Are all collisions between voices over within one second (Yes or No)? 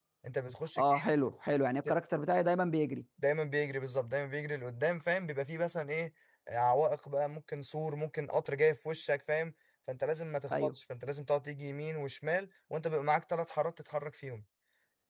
Yes